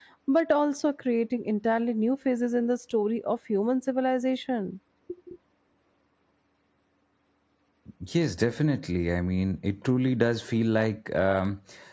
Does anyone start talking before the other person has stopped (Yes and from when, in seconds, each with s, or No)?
No